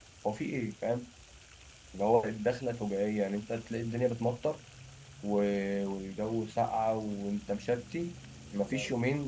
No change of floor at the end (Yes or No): Yes